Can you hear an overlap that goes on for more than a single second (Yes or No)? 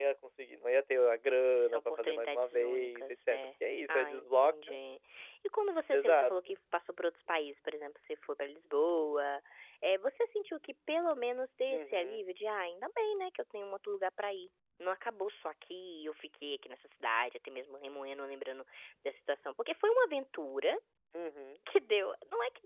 Yes